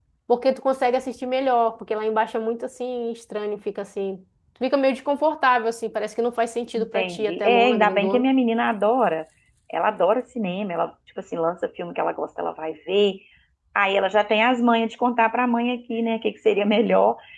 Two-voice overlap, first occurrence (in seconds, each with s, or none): 6.8 s